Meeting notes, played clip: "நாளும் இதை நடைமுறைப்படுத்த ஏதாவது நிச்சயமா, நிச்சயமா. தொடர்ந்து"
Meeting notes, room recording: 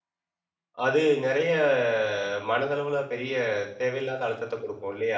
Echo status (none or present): none